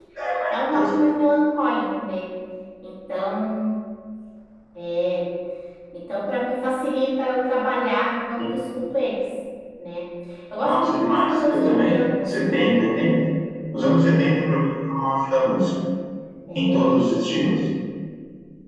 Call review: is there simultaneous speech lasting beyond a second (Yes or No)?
Yes